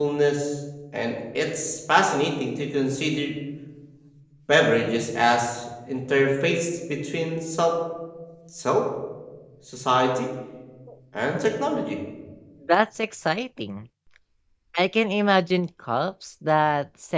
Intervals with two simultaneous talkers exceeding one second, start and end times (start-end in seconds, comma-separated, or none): none